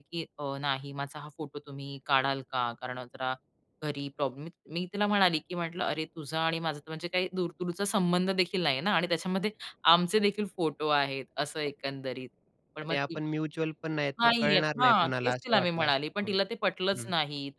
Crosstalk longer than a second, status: present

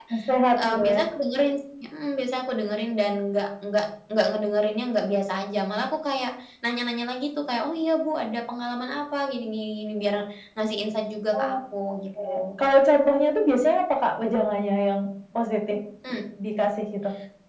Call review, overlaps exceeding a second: none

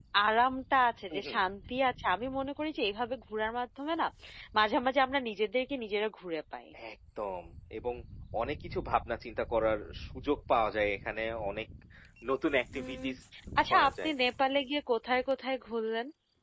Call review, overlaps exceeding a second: none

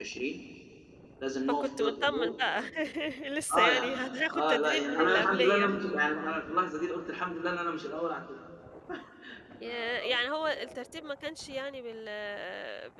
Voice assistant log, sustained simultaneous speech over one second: present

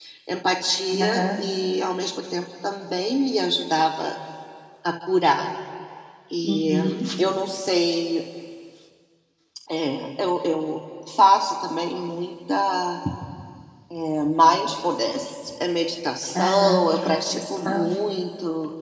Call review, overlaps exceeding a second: present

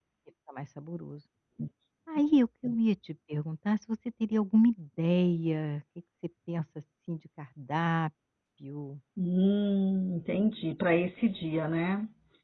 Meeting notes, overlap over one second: none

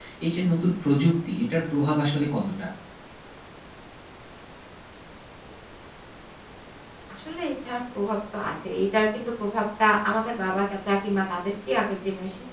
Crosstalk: none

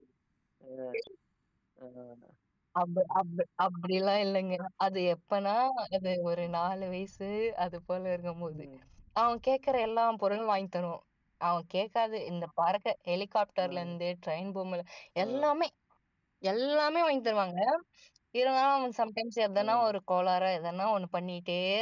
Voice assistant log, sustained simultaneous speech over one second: none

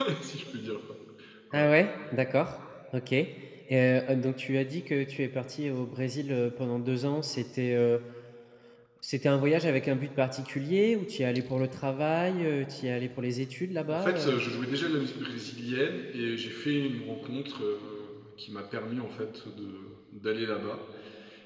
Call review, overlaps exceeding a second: none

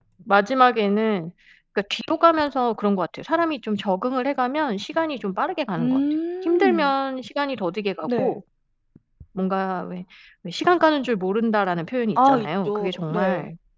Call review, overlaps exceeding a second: present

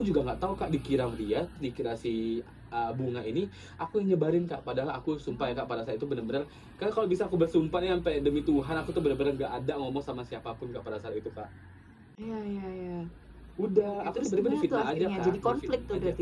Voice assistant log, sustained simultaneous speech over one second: present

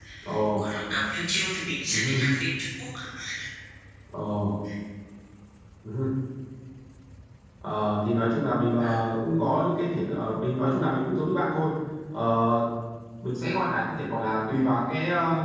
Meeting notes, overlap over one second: none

